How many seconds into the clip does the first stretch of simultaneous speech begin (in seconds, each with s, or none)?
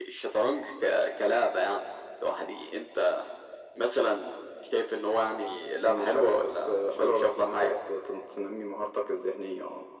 5.8 s